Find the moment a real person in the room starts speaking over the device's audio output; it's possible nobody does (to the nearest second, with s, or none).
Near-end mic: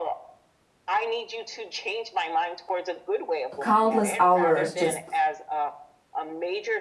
4 s